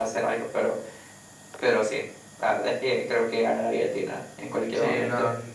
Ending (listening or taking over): taking over